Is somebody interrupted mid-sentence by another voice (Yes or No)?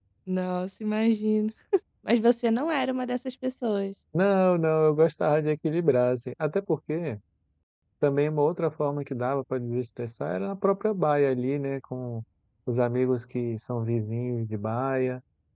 No